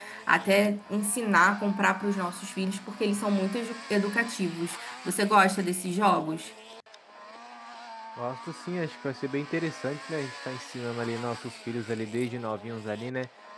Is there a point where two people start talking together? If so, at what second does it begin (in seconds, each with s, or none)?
none